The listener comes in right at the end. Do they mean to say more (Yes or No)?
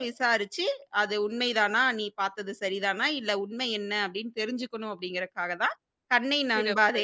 No